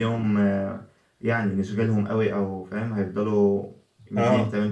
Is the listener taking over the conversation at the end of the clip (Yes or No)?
No